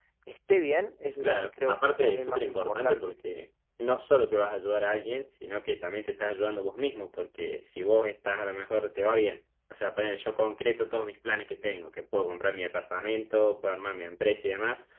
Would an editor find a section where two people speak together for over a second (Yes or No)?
Yes